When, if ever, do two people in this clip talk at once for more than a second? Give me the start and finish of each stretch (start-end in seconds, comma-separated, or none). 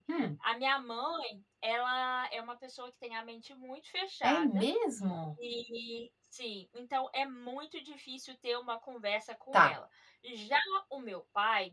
none